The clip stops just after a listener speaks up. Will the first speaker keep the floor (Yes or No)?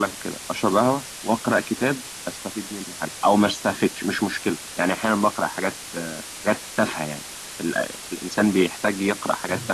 No